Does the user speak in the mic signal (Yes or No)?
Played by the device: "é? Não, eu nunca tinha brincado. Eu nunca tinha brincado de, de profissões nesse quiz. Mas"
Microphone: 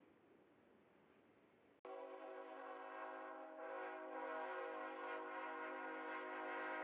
No